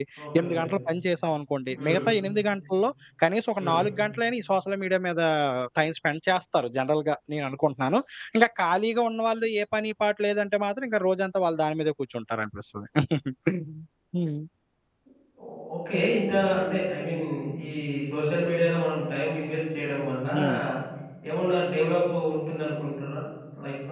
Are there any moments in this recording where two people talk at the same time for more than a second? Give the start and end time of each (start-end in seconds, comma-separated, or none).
none